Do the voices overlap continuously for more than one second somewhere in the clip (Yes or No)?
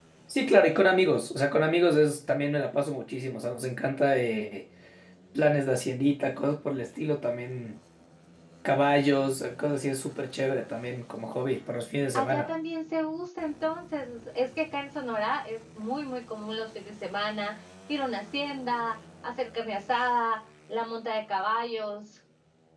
No